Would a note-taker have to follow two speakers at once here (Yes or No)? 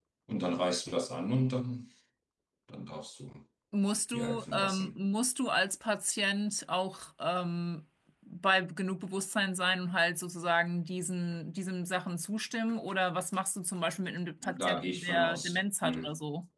Yes